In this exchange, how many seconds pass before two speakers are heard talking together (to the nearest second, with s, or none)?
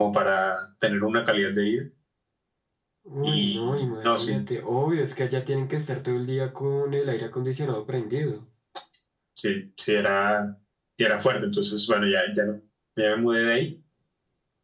3 s